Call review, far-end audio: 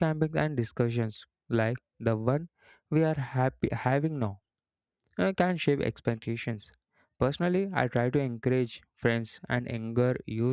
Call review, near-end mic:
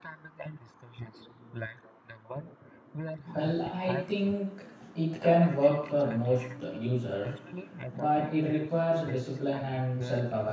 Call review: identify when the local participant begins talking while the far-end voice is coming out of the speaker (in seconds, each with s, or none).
3.3 s